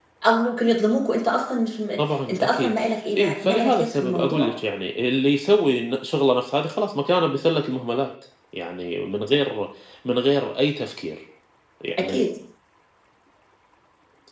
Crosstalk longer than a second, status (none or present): present